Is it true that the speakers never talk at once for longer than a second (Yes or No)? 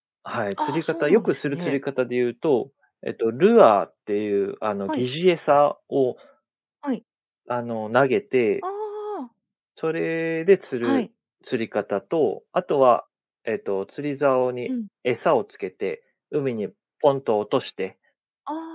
No